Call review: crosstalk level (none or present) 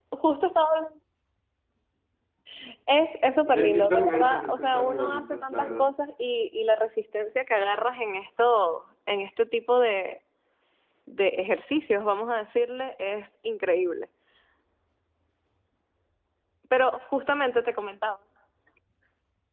present